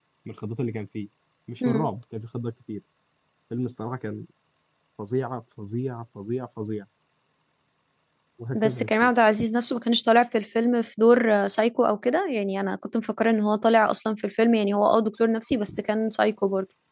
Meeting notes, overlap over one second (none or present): none